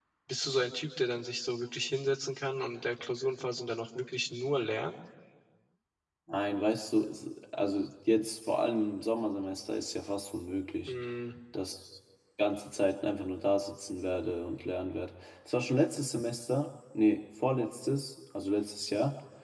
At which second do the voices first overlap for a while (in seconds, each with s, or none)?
none